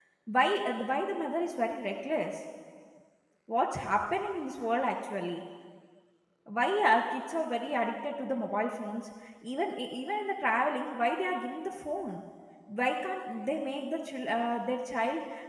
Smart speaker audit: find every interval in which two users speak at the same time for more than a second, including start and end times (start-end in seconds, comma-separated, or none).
none